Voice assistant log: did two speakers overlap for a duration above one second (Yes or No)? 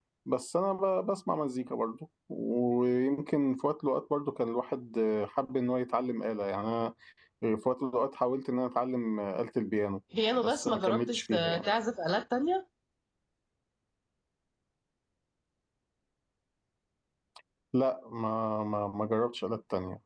Yes